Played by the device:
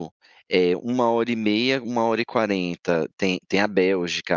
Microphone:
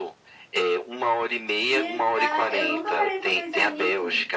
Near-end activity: present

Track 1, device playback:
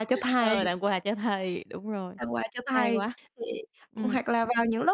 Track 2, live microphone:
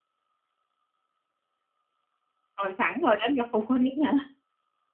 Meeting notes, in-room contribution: present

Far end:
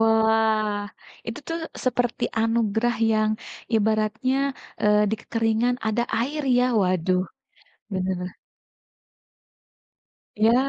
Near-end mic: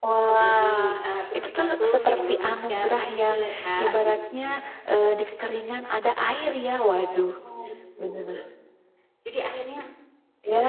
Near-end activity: present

